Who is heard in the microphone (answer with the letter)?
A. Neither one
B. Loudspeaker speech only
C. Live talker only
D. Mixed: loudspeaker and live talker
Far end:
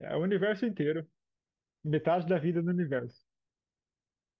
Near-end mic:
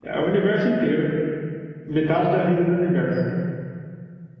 B